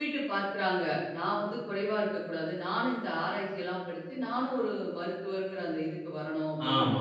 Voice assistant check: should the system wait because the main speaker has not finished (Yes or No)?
No